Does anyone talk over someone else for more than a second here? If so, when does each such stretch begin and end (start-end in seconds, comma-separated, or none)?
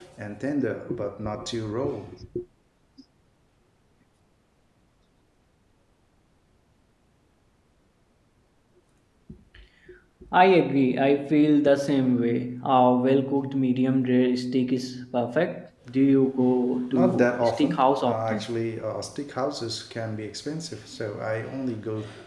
16.9-18.4